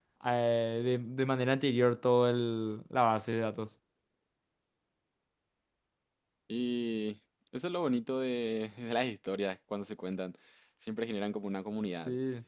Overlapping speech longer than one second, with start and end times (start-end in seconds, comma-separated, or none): none